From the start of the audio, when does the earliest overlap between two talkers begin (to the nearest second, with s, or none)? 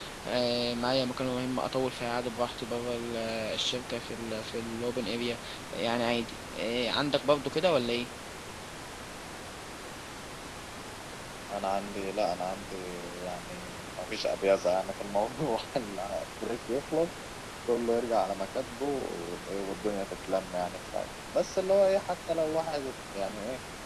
none